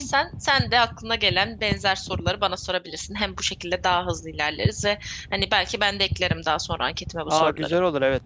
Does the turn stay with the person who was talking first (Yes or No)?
No